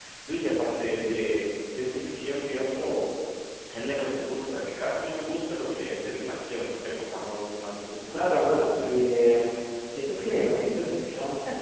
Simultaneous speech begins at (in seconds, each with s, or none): 8.1 s